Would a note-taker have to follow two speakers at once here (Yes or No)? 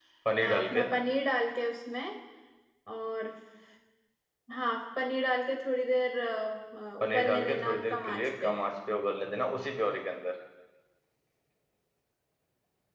Yes